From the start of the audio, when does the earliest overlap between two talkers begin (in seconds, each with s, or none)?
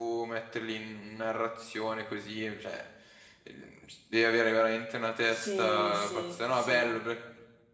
5.3 s